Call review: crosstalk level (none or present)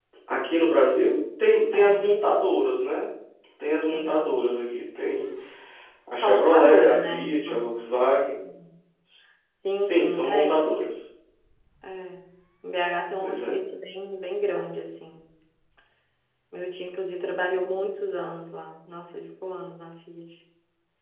present